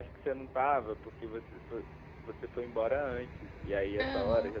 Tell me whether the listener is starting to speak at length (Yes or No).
No